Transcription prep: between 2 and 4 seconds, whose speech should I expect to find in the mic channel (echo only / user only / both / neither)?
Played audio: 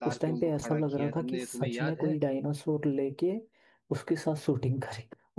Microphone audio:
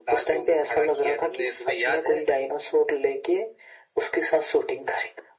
echo only